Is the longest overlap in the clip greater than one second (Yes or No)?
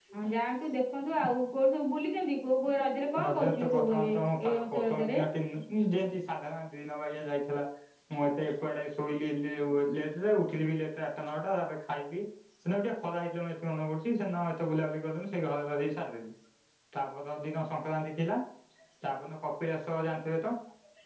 Yes